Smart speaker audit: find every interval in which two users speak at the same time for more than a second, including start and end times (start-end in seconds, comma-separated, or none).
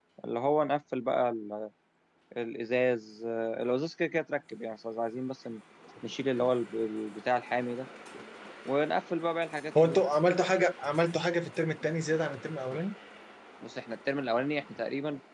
none